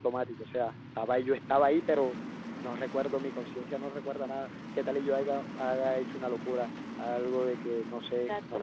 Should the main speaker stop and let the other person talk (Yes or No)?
Yes